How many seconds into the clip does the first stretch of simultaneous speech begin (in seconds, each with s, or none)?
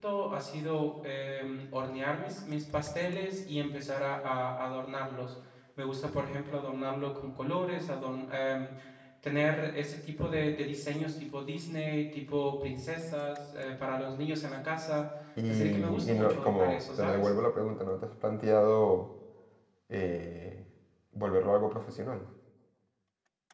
15.5 s